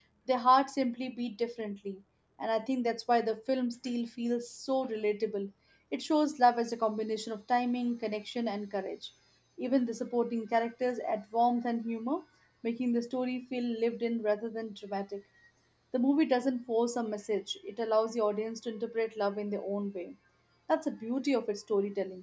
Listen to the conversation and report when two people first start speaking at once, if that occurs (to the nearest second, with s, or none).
none